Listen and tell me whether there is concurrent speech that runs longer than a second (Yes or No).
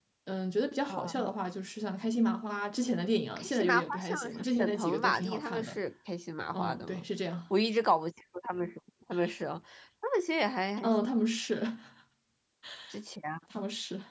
Yes